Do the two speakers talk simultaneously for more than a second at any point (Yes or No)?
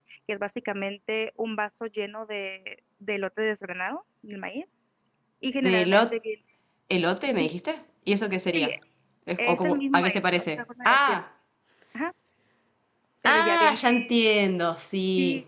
Yes